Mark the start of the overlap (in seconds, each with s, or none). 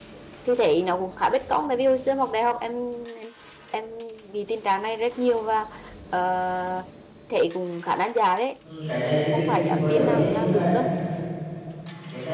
9.3 s